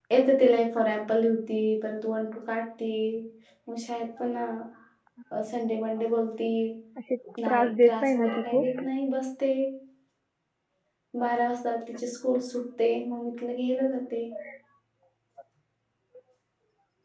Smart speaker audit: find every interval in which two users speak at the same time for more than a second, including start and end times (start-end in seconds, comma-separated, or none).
7.5-8.7